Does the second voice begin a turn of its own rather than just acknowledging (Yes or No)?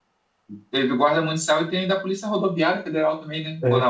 Yes